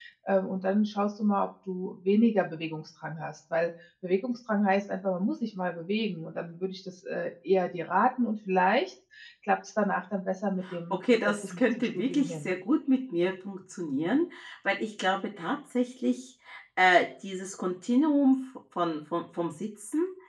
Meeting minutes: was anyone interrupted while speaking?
Yes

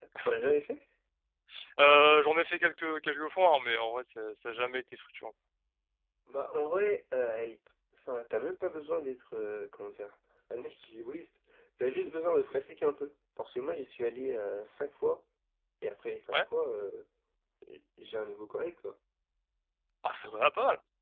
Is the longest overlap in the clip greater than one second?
No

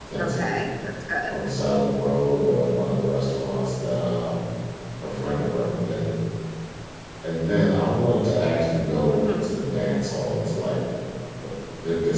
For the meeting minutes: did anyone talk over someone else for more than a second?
No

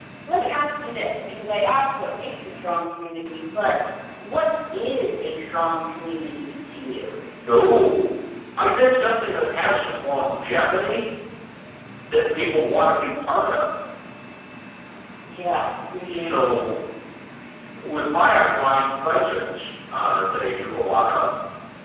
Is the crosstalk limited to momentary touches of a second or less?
Yes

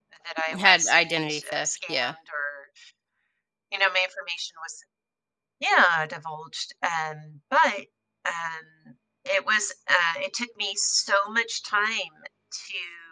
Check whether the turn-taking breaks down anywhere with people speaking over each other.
Yes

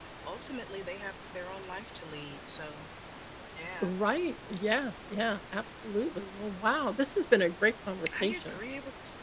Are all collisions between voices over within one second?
Yes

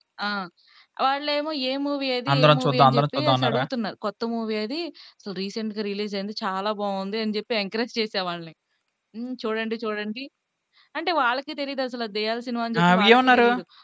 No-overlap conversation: No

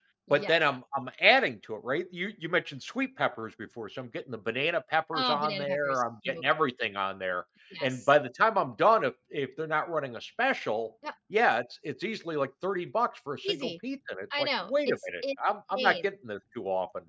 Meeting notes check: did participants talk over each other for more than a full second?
Yes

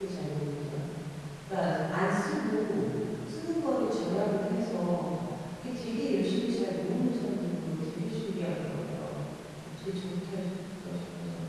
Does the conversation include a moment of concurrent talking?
No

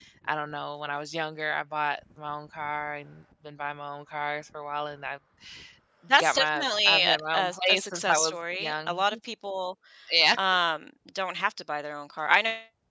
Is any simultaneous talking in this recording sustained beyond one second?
Yes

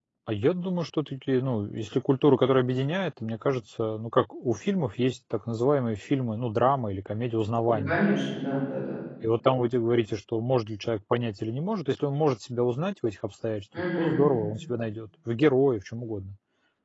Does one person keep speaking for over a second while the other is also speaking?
No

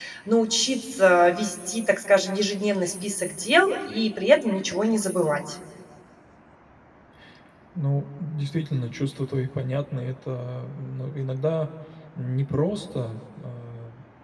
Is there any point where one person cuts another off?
No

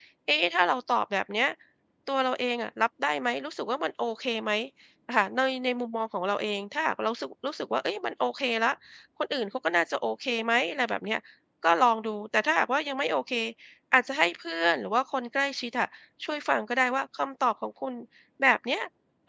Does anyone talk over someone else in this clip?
No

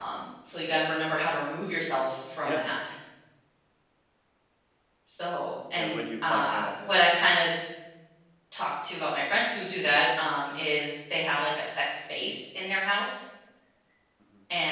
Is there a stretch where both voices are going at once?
Yes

